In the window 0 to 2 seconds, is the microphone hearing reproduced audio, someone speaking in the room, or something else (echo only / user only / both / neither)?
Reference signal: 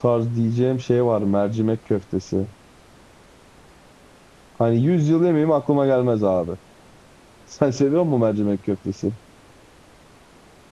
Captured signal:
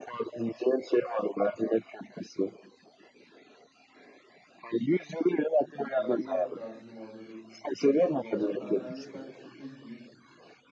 echo only